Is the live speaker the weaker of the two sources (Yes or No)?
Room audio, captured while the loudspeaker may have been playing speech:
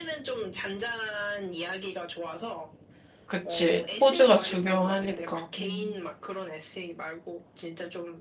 No